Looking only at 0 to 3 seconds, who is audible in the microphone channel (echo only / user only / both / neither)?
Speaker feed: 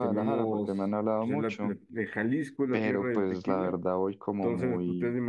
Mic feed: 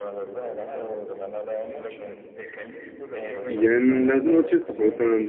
echo only